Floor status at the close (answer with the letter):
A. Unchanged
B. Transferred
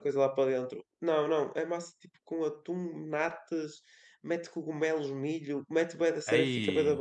A